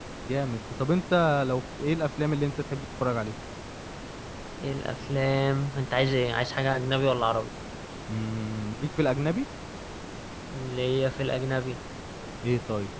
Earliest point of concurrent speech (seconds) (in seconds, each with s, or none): none